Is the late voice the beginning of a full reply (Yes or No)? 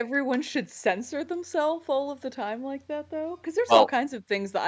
No